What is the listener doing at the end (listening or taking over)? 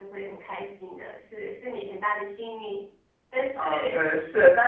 taking over